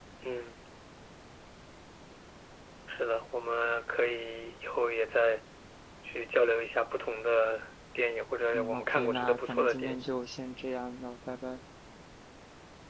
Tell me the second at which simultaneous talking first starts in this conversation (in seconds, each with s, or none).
8.5 s